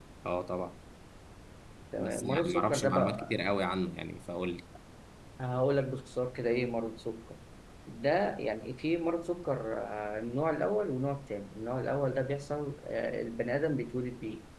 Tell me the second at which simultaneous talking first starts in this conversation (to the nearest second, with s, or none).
2 s